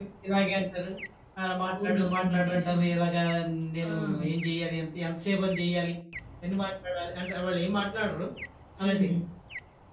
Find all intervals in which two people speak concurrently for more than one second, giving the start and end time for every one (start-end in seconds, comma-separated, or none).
1.7-2.9